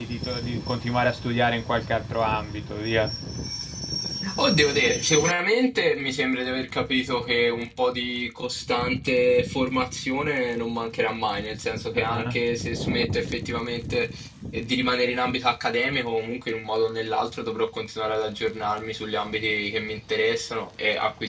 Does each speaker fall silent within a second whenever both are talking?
Yes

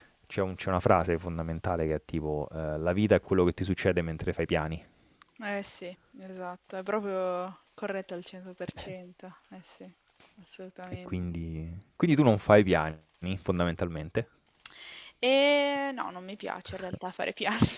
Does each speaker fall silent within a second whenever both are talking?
Yes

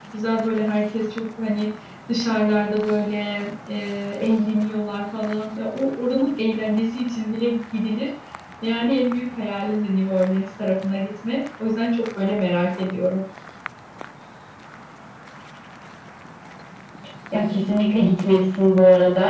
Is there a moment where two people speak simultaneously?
No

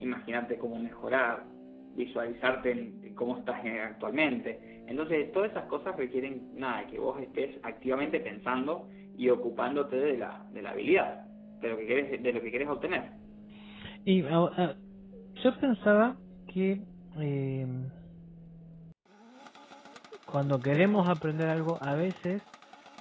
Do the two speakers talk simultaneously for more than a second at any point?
No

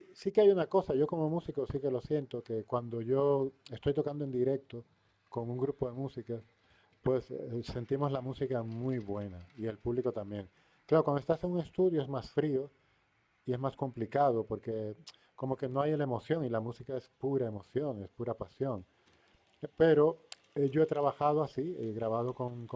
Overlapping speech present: No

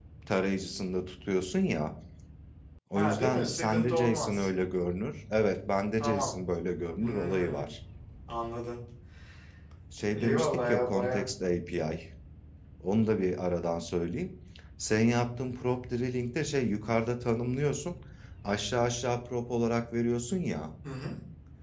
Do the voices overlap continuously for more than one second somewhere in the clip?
Yes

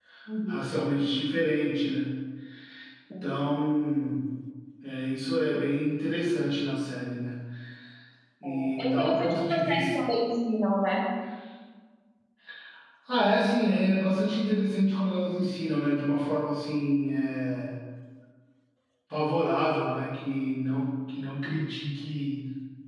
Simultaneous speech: Yes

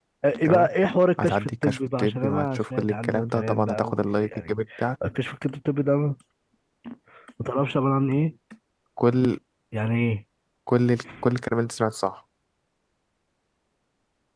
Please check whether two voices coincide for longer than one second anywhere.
Yes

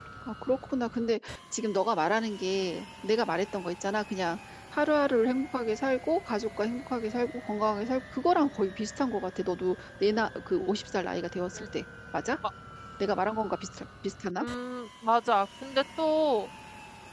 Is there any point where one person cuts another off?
No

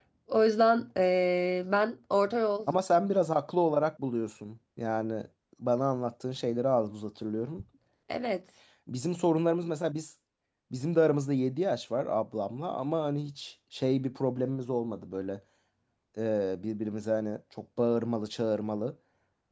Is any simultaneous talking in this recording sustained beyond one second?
No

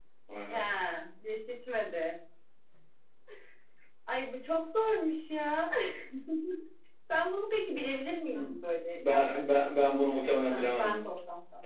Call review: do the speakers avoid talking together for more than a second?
No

